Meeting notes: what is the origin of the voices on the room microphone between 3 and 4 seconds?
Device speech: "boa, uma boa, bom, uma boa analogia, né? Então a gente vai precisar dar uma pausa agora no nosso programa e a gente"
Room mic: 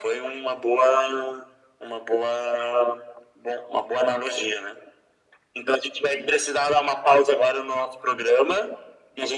echo only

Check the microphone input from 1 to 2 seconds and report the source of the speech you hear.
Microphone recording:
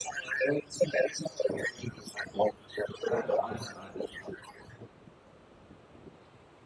echo only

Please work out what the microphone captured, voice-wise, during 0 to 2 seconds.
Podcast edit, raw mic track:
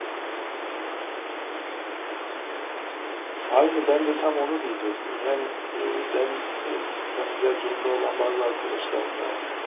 neither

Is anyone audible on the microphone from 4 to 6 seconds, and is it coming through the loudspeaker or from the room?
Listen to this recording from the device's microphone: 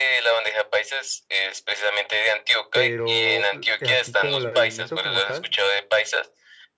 both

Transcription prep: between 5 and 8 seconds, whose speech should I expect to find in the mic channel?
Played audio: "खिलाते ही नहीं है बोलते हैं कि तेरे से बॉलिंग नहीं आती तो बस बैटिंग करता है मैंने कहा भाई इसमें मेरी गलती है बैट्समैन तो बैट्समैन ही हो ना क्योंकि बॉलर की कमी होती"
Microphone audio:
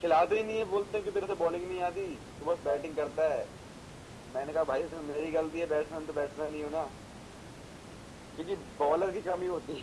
echo only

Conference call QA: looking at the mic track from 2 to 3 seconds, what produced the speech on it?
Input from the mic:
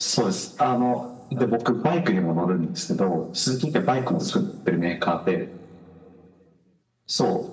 echo only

